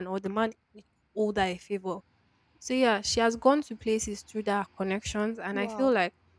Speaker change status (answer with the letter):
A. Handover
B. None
B